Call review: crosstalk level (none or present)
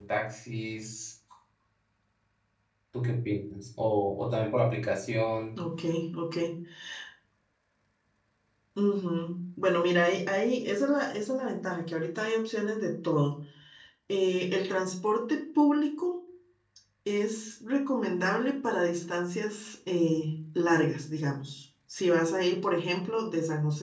none